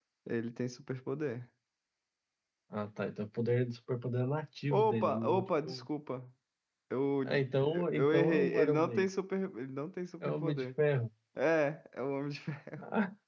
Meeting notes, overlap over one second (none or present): present